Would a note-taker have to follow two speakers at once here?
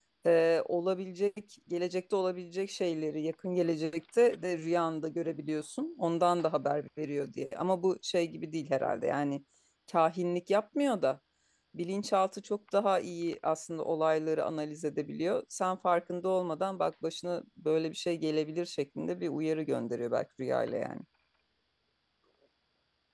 No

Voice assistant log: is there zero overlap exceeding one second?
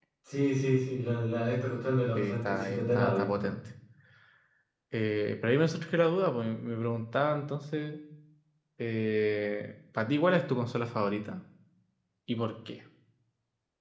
No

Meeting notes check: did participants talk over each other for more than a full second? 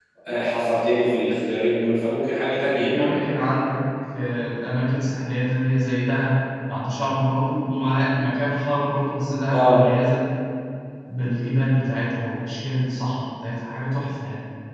No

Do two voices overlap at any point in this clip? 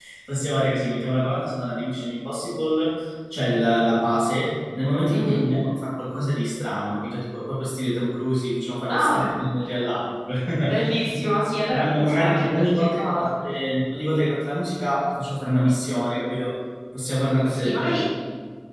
Yes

